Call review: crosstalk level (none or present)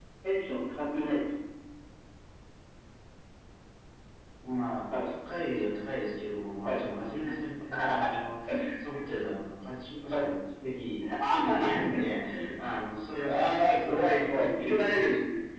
present